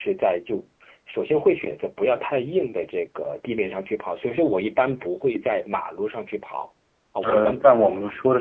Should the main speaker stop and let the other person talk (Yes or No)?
Yes